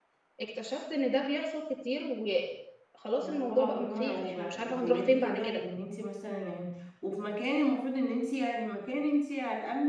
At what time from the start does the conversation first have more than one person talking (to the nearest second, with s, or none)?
3 s